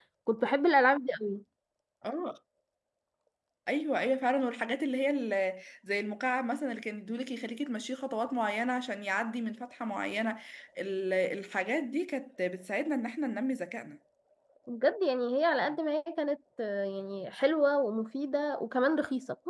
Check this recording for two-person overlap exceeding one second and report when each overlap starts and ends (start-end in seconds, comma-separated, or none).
none